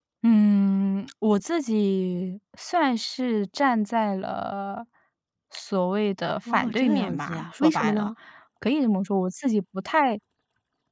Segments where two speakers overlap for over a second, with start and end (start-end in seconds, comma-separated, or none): 6.5-8.1